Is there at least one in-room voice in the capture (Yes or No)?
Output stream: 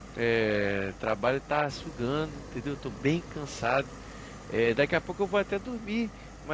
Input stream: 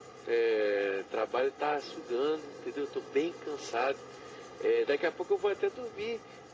No